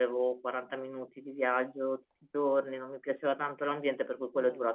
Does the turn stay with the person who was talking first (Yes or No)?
Yes